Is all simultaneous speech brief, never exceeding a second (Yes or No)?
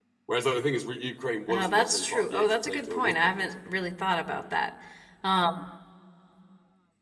No